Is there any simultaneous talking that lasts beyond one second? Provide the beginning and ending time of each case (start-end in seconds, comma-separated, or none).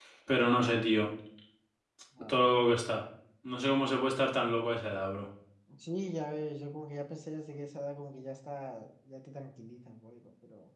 none